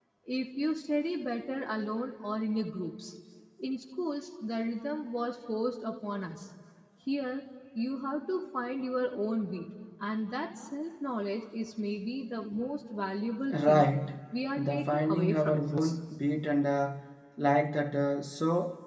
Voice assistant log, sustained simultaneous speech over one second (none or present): present